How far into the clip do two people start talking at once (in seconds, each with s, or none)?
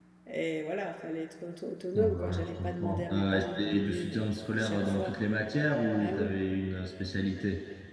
1.9 s